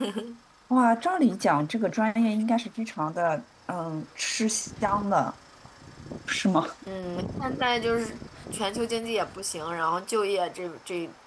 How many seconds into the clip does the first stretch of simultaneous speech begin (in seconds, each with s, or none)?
none